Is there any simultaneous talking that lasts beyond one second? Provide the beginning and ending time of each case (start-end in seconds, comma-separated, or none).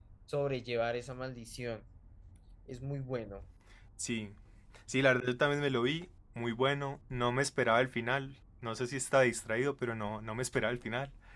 none